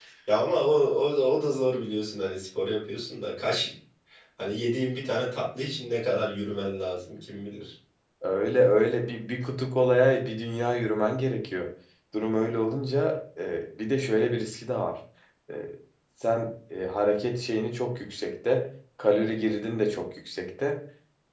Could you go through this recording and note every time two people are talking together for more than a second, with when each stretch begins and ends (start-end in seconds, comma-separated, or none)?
none